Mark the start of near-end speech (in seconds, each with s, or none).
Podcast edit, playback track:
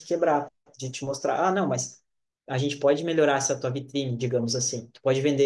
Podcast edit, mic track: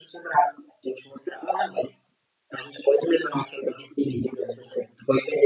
none